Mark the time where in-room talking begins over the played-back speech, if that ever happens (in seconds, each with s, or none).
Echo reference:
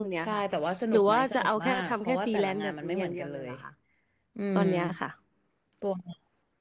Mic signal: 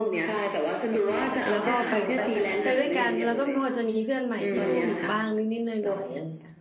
1.5 s